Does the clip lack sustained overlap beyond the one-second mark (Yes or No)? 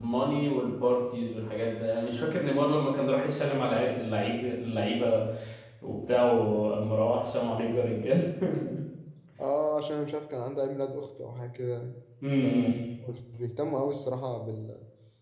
Yes